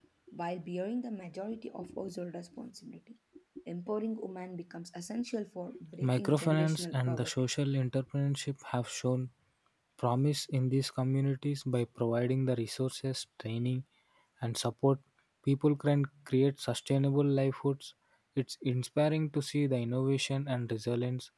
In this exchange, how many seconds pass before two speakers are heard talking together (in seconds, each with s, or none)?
6.0 s